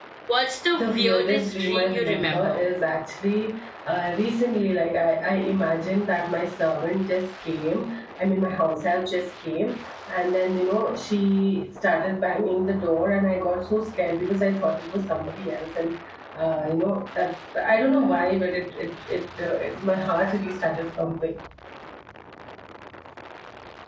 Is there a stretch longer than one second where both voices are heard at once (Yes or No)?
Yes